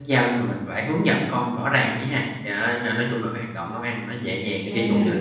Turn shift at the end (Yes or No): No